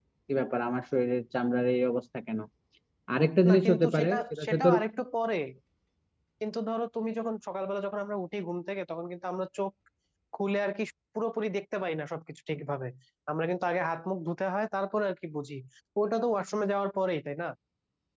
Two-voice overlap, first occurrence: 3 s

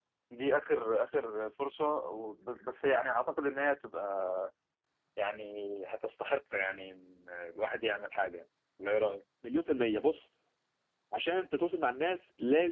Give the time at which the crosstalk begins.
none

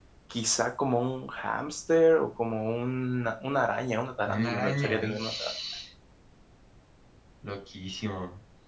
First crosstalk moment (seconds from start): 4 s

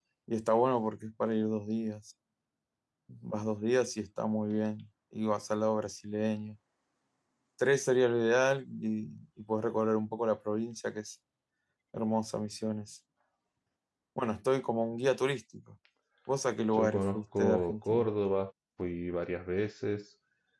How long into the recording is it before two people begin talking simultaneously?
17 s

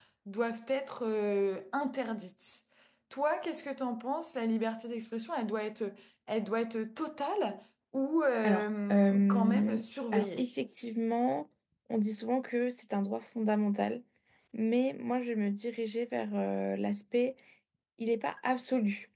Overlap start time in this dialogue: 8 s

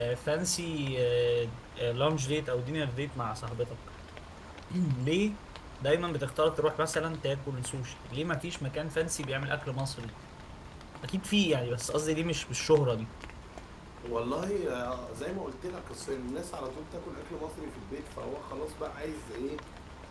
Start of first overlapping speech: none

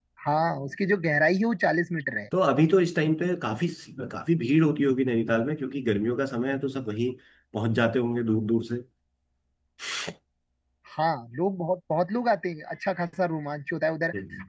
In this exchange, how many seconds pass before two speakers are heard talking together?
none

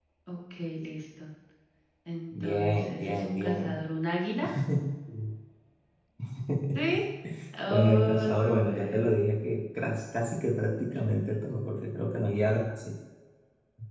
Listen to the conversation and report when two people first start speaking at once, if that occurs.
2 s

